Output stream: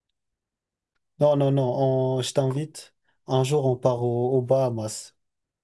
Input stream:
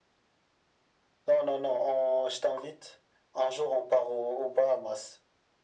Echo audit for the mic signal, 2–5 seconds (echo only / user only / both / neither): echo only